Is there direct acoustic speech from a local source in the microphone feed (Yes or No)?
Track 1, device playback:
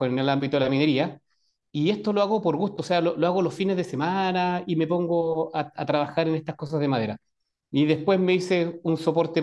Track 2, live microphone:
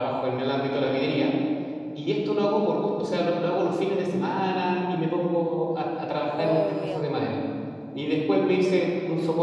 Yes